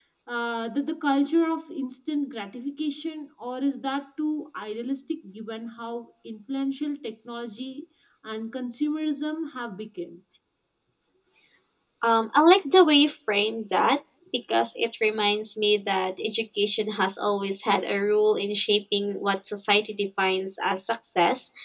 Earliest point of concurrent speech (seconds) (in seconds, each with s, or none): none